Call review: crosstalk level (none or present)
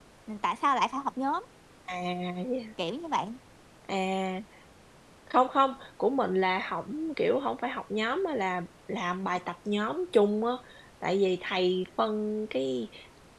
none